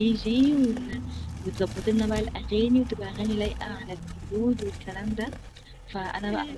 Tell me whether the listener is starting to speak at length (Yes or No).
No